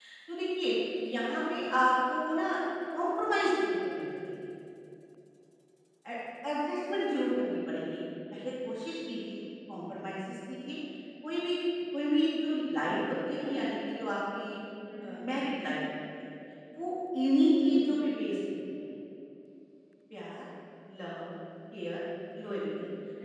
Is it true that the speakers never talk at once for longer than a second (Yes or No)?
Yes